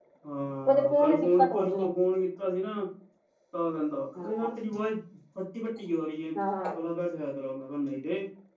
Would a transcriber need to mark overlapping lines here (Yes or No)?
Yes